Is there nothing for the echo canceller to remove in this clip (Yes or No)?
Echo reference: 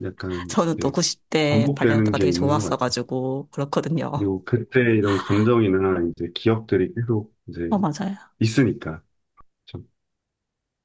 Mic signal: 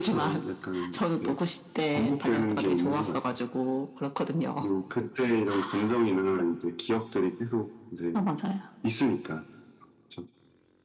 No